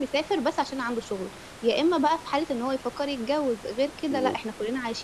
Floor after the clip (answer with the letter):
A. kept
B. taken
A